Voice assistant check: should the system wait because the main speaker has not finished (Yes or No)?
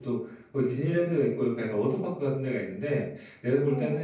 Yes